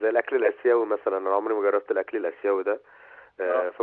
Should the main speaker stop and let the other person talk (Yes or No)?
No